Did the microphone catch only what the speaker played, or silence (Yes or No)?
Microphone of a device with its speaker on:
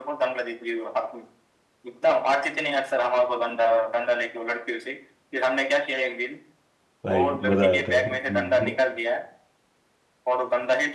No